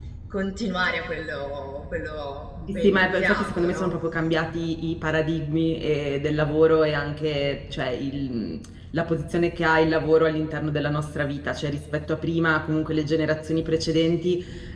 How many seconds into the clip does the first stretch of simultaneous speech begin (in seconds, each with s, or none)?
2.7 s